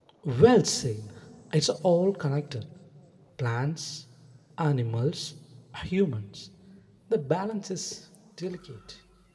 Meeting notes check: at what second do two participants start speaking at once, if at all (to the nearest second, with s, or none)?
none